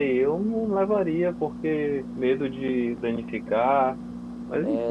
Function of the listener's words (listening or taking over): taking over